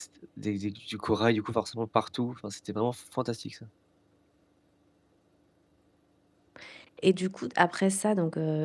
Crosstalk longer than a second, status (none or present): none